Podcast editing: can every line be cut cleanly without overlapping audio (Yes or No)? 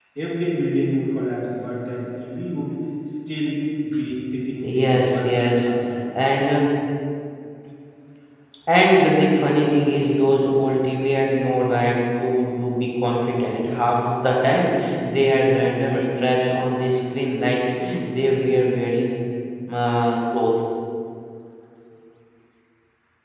No